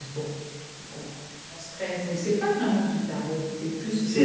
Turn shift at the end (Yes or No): Yes